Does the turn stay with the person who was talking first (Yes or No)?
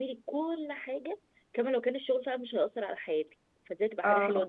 Yes